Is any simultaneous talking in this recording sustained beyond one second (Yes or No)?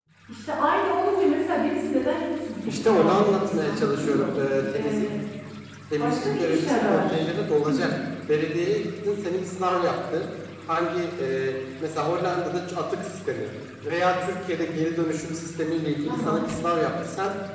Yes